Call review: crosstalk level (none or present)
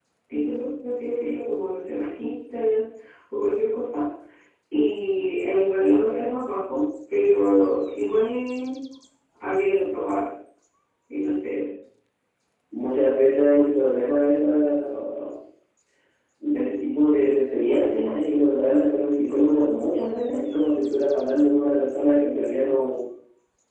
none